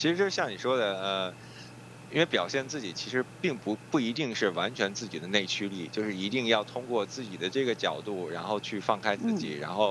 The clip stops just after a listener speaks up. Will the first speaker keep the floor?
Yes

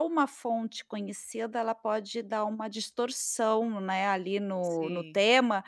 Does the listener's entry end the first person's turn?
No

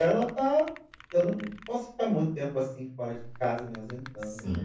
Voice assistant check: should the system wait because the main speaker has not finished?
No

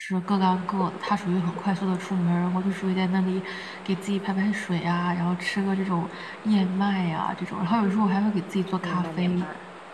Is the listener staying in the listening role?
No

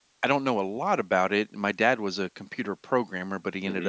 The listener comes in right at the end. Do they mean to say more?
No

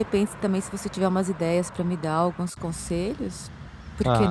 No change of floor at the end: No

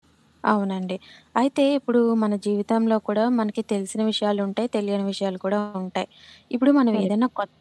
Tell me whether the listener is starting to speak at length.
No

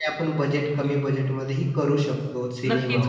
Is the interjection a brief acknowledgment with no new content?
No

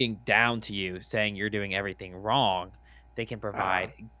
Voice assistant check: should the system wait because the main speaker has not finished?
Yes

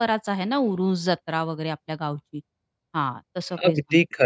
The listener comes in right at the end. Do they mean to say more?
Yes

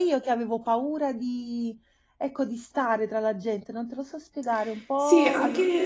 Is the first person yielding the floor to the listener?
Yes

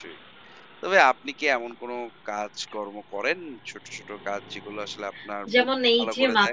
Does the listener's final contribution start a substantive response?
Yes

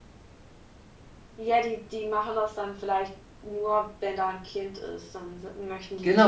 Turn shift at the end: Yes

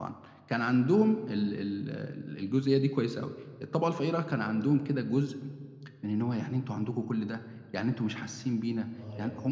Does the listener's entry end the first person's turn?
Yes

